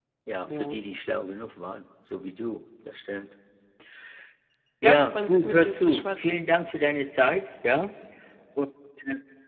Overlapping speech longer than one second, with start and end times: 4.8-6.4

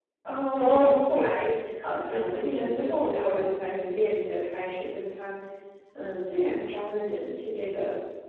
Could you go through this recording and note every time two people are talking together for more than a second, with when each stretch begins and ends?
2.0-3.4

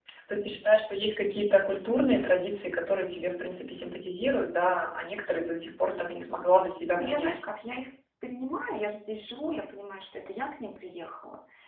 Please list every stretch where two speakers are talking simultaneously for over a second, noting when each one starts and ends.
none

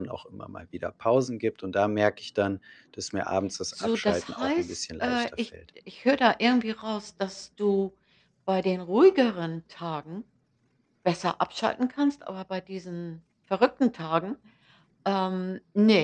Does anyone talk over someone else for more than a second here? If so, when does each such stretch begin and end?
3.8-5.5

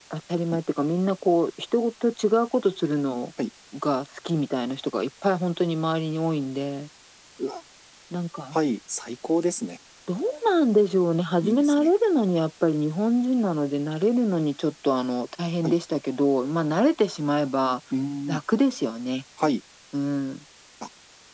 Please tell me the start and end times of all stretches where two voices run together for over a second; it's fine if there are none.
none

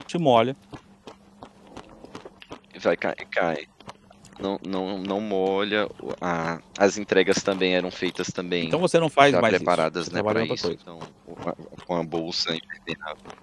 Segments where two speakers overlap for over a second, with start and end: 9.2-10.7

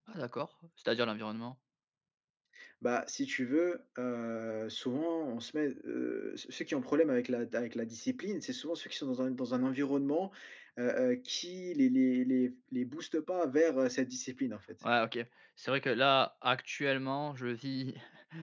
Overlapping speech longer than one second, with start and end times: none

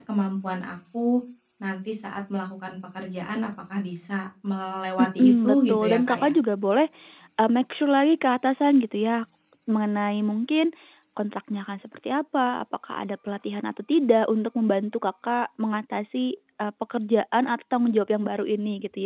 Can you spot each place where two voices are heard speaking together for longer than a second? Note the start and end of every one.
5.0-6.3

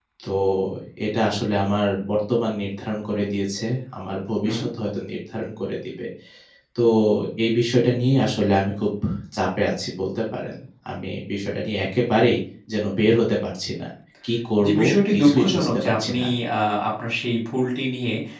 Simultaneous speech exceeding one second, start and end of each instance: 14.7-16.2

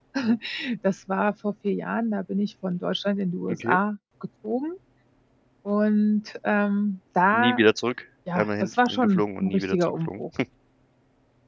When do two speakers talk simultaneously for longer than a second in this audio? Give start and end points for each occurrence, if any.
8.4-10.2

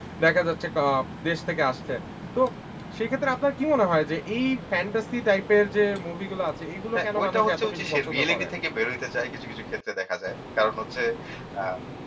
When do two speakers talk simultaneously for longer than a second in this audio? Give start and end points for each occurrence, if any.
7.0-8.4

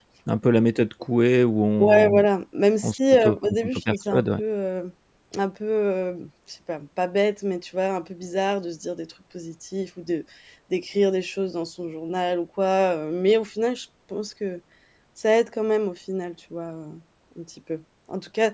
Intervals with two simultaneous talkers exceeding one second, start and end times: 2.8-4.4

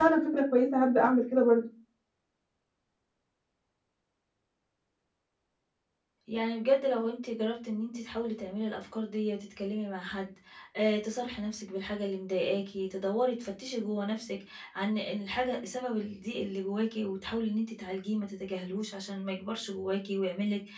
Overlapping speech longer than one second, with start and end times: none

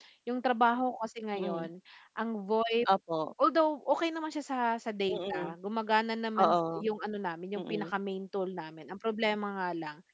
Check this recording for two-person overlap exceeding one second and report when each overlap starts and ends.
none

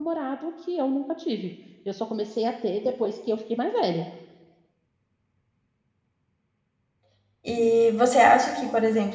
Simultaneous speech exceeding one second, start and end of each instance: none

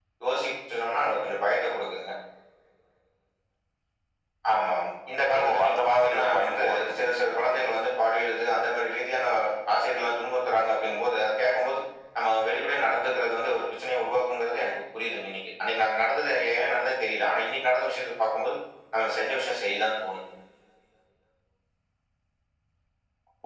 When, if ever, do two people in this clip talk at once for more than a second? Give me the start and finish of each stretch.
5.3-7.7

